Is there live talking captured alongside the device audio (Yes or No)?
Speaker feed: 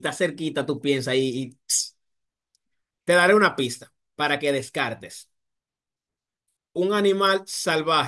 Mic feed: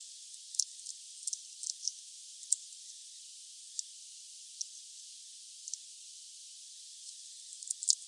No